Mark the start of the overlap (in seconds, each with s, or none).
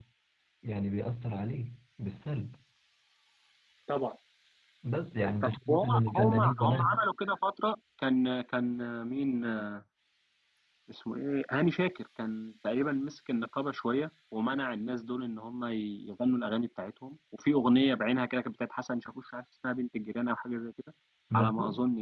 5.4 s